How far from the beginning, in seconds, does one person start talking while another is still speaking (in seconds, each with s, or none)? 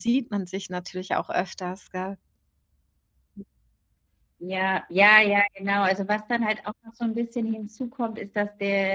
none